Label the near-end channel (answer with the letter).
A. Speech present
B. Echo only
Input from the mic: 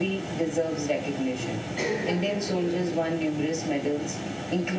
A